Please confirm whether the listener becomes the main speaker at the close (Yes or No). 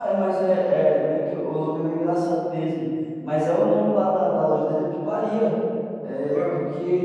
No